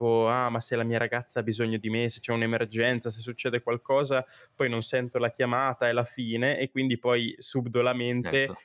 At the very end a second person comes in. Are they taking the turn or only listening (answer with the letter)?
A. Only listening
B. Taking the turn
A